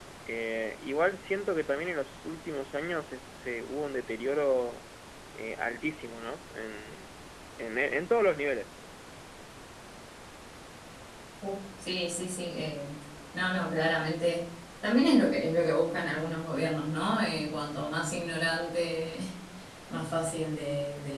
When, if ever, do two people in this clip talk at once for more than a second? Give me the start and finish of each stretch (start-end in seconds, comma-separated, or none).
none